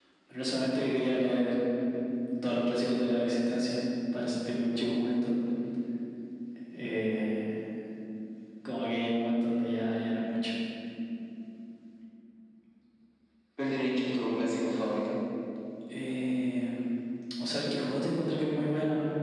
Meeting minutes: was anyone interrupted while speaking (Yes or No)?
No